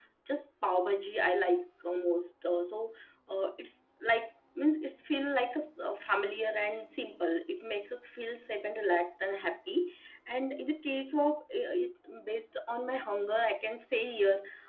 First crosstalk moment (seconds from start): none

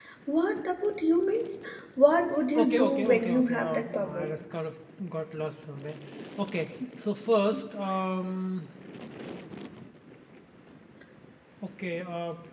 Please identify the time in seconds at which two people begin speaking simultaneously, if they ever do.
2.5 s

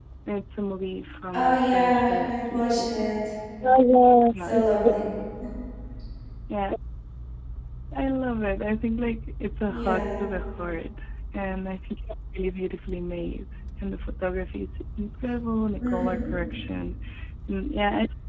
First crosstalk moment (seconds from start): 1.3 s

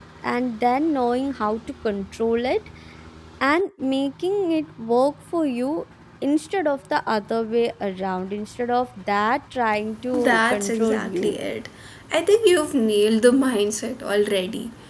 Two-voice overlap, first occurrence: 10.1 s

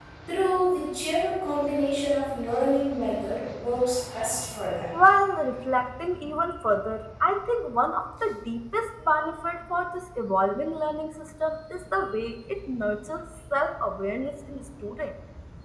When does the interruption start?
none

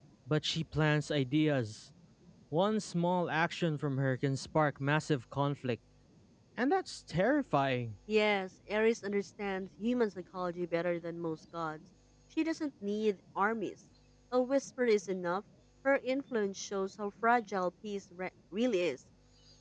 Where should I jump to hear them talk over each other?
none

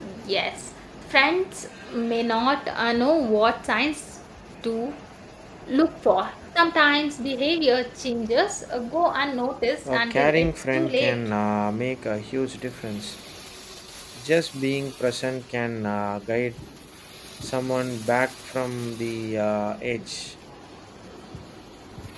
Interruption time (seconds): 9.8 s

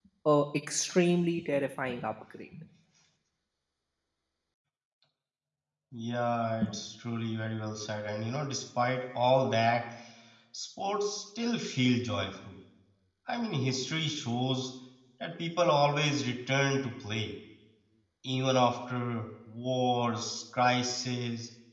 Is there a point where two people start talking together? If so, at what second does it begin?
none

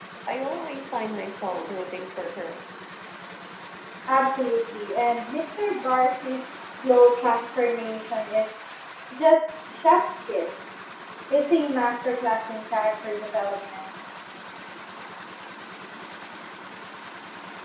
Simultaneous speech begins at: none

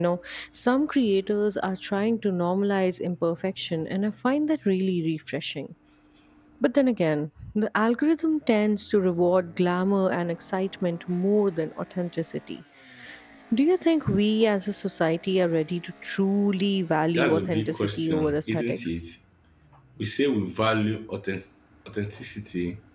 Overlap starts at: 17.1 s

